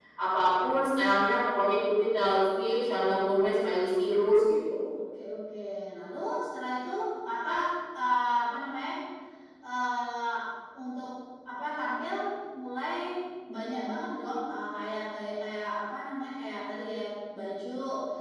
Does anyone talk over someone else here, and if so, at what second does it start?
none

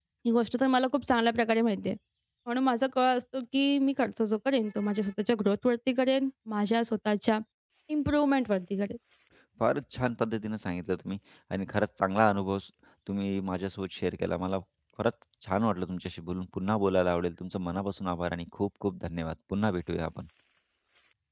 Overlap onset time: none

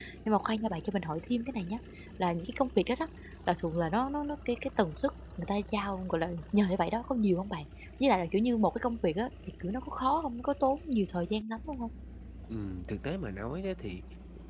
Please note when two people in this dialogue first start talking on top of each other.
none

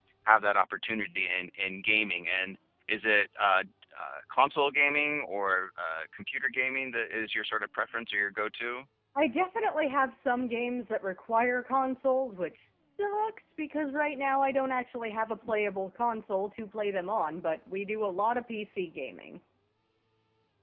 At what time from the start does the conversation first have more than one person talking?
none

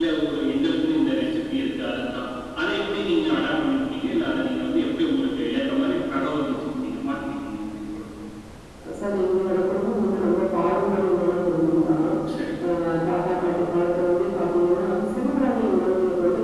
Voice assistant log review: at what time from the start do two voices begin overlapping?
none

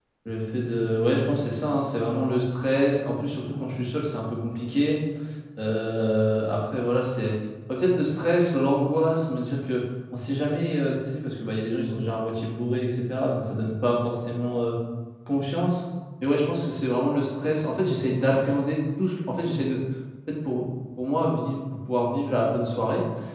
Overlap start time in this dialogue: none

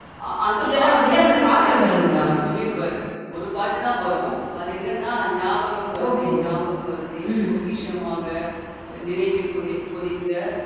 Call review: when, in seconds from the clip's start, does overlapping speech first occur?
0.6 s

